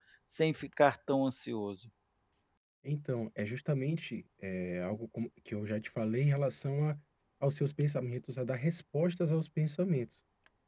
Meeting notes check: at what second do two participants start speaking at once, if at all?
none

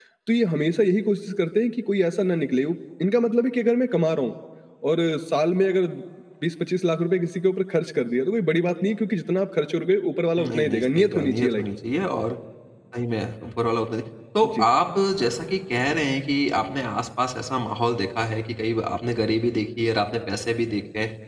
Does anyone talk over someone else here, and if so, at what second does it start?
10.4 s

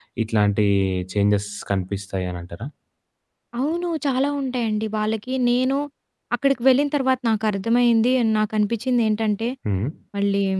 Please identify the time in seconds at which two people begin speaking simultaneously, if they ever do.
none

